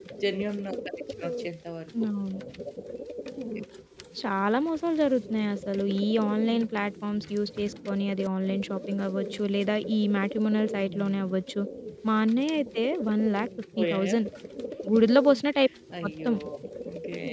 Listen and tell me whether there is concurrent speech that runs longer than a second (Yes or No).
No